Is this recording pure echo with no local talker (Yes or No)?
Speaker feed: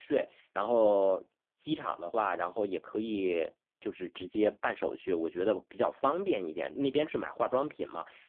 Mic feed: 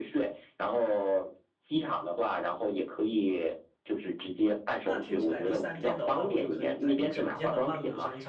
No